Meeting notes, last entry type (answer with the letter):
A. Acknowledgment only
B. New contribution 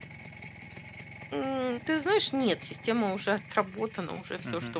A